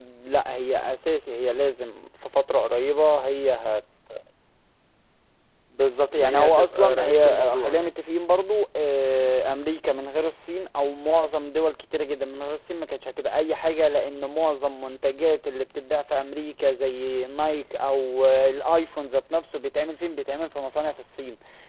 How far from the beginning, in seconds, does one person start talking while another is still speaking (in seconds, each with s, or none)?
6.1 s